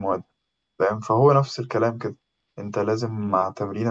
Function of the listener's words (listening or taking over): listening